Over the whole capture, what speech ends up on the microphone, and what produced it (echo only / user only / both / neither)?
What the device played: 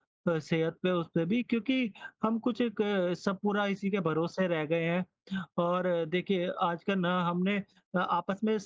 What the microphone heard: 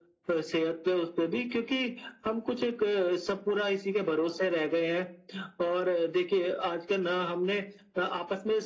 echo only